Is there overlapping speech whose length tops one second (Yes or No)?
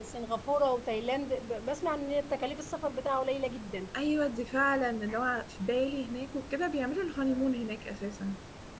No